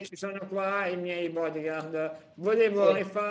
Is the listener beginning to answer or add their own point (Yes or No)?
No